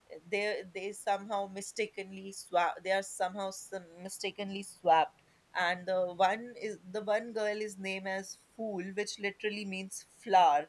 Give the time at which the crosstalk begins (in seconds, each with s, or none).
none